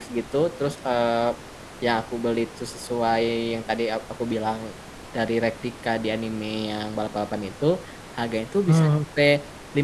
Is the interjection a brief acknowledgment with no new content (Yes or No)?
Yes